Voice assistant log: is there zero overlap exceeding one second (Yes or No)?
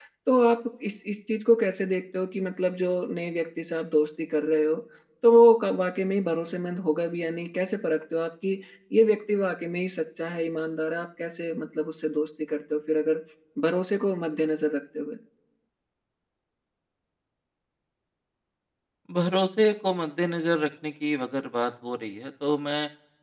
Yes